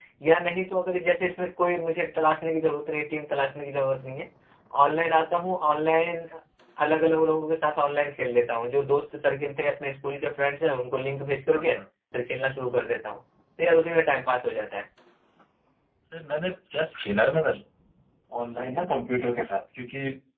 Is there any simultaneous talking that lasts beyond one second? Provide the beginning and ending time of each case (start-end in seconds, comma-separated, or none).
none